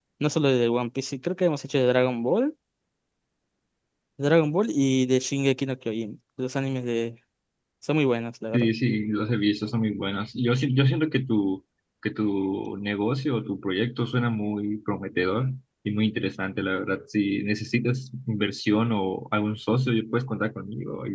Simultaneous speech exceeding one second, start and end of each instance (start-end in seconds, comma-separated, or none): none